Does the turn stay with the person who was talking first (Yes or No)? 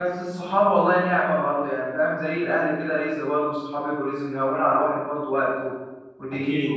No